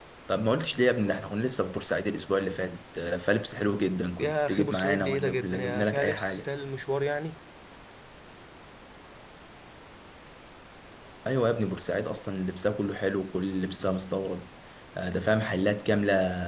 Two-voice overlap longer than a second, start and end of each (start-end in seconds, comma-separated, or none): 4.2-6.4